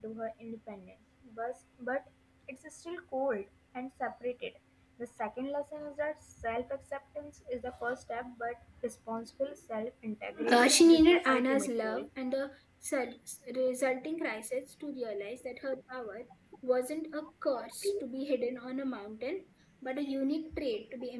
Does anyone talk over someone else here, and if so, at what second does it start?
10.5 s

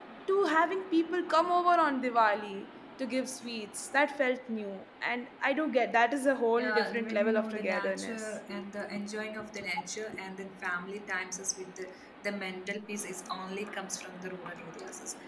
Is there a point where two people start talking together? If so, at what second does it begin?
6.6 s

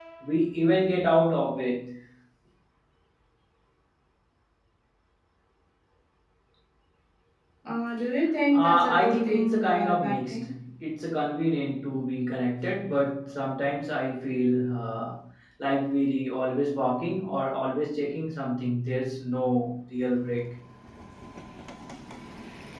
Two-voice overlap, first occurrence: 8.5 s

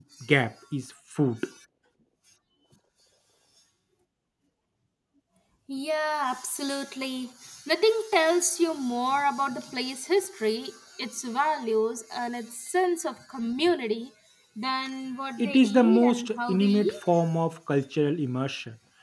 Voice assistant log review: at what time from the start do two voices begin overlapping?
15.4 s

